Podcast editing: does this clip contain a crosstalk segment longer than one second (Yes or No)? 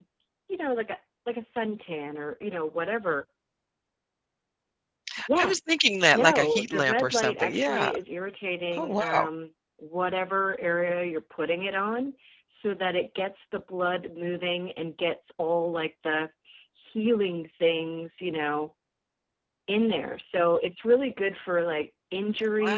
Yes